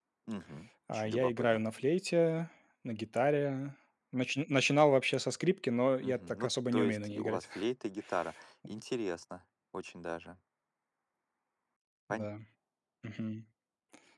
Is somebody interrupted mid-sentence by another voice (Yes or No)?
Yes